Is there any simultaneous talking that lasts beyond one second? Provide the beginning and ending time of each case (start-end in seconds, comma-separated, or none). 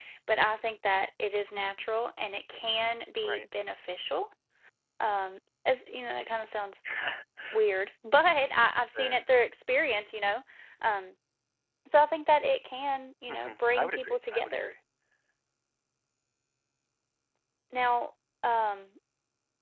13.3-14.7